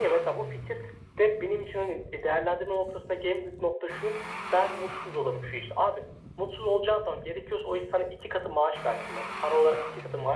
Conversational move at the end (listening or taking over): listening